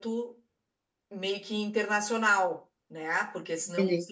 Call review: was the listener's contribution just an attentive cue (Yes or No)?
Yes